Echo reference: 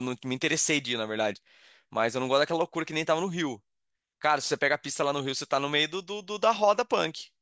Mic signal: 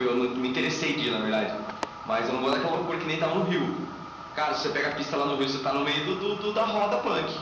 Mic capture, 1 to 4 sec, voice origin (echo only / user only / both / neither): echo only